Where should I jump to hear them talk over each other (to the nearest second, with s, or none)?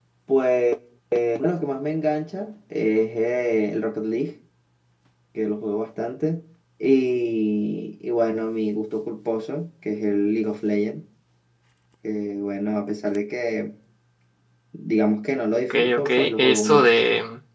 16 s